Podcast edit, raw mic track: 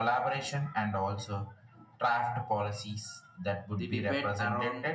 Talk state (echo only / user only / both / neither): both